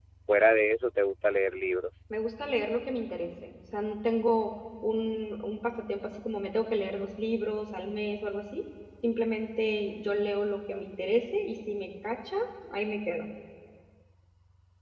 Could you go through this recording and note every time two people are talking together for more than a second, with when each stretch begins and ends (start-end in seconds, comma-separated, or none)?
none